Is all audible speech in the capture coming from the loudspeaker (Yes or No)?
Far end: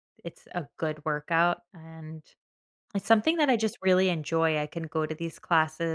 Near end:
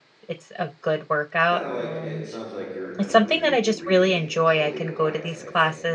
No